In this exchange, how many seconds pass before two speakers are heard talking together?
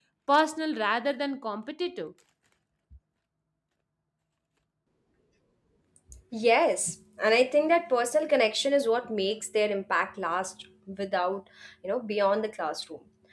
none

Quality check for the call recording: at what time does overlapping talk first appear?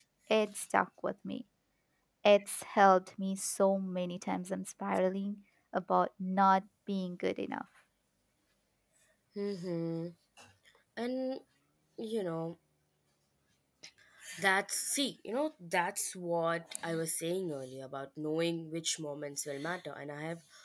none

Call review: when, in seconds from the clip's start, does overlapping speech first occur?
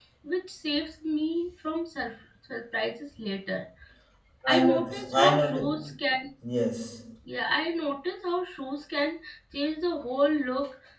4.5 s

